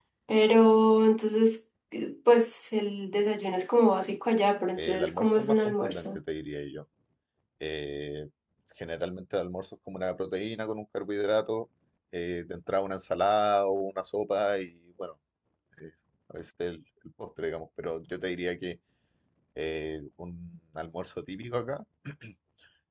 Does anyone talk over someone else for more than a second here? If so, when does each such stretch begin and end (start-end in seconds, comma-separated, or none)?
4.8-6.2